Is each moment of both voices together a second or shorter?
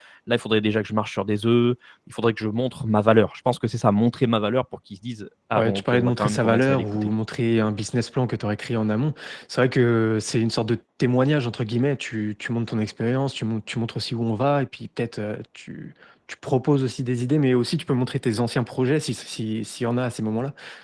No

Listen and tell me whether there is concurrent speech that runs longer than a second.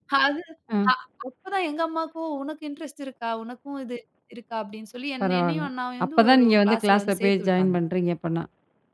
Yes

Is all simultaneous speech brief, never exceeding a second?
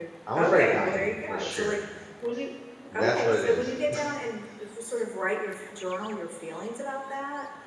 No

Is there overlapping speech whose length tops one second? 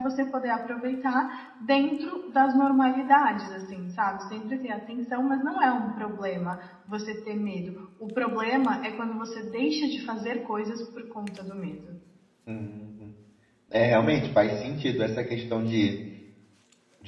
No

